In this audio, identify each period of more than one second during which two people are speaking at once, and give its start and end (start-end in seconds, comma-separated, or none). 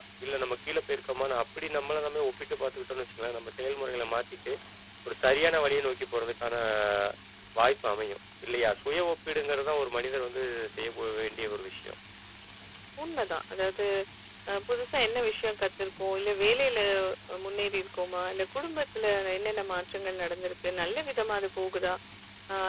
none